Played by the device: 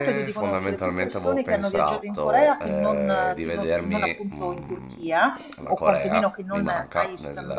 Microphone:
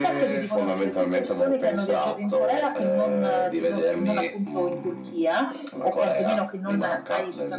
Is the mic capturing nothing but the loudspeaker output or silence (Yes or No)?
Yes